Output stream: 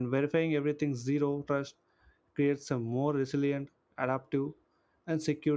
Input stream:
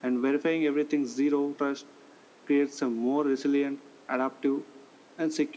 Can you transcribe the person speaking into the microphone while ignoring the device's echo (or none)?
none